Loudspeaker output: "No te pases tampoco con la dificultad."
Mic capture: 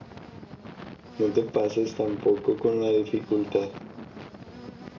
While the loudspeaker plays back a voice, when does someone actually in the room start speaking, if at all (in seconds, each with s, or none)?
none